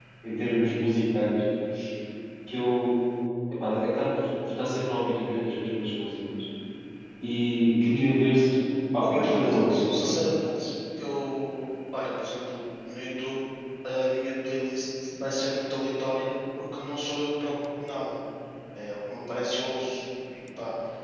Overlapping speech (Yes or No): Yes